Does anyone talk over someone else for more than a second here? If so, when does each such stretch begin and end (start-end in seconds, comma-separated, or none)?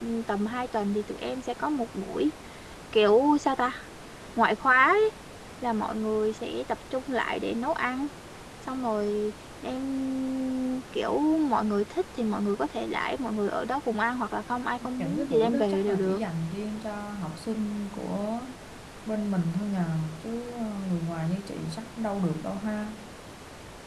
15.0-16.2